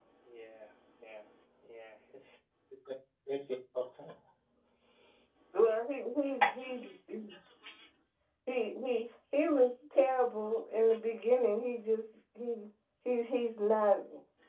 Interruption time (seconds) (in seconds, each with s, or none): none